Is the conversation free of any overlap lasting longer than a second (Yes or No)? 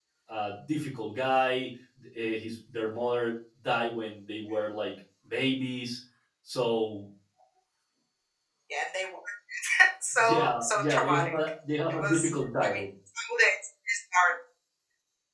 No